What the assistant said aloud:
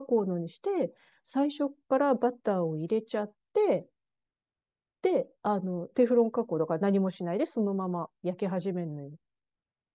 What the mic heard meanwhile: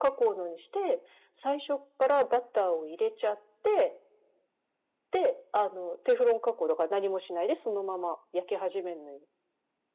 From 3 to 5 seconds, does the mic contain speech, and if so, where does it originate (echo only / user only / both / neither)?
echo only